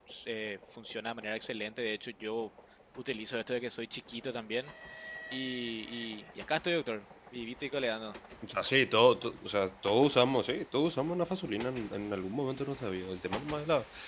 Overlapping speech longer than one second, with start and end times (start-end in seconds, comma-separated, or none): none